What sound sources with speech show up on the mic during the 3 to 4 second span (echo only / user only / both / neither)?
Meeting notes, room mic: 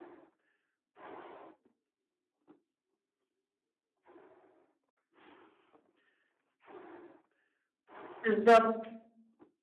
neither